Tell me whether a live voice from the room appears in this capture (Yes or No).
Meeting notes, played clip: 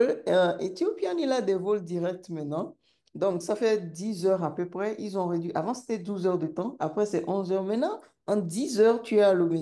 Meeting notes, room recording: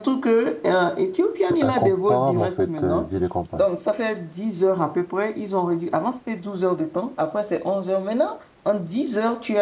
Yes